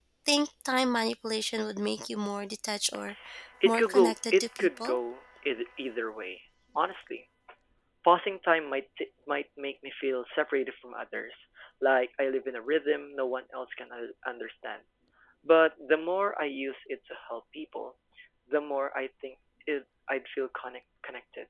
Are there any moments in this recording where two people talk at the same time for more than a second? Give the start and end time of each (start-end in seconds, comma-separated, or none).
3.6-5.0